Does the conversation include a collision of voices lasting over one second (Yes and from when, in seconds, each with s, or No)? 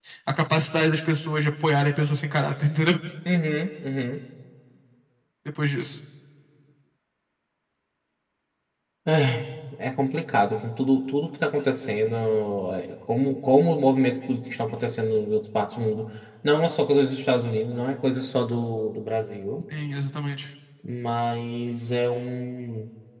No